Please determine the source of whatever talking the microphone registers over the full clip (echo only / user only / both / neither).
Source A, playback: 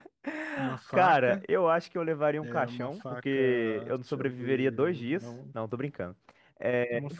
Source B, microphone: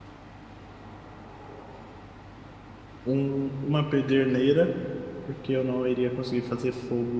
user only